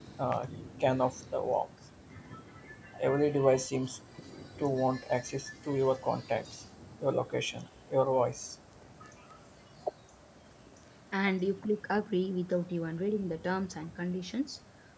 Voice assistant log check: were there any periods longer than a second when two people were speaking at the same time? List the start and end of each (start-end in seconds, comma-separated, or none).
none